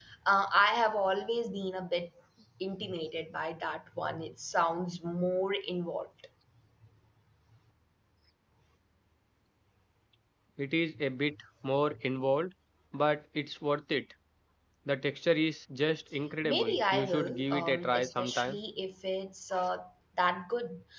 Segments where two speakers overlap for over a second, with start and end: 16.4-18.6

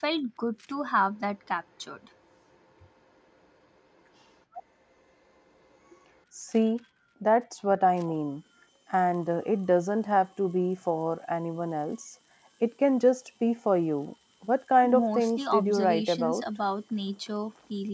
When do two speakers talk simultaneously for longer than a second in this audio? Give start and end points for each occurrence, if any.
15.0-16.4

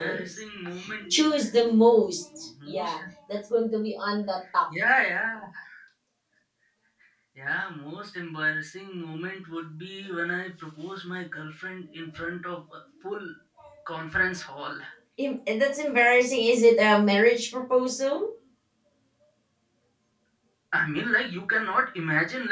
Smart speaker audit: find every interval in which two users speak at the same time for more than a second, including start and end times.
none

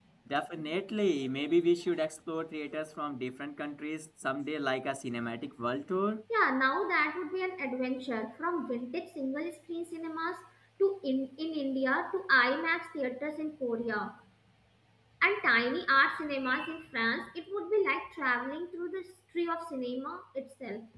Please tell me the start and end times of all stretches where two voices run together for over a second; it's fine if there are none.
none

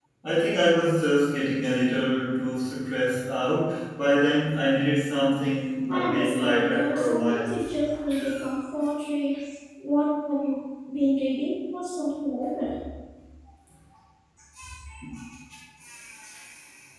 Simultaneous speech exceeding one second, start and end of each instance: 5.9-7.5

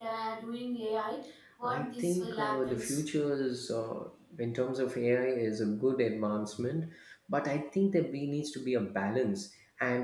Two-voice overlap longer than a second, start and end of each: 1.6-3.0

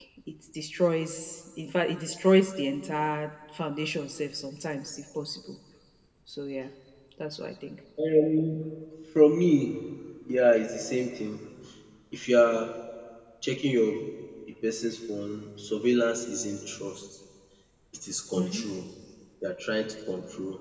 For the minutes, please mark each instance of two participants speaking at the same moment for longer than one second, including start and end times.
none

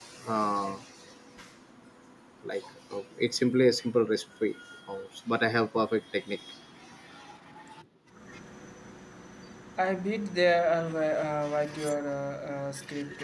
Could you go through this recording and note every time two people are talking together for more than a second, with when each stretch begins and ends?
none

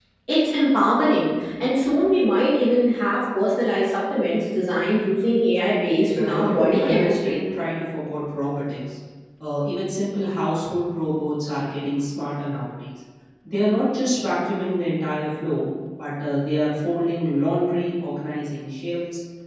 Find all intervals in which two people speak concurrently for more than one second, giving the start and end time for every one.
6.1-7.4

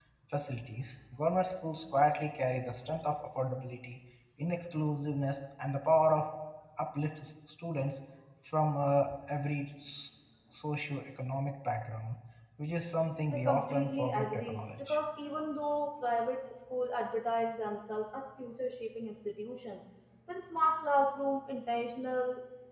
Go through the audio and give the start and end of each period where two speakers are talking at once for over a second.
13.3-15.0

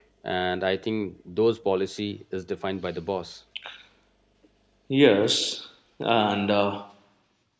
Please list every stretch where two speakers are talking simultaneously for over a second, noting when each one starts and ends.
none

